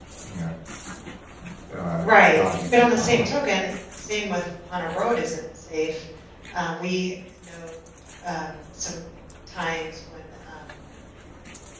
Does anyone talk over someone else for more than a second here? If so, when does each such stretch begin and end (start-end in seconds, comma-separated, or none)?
2.0-3.2